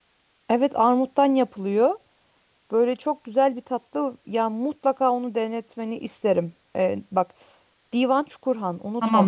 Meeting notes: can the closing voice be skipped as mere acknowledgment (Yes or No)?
No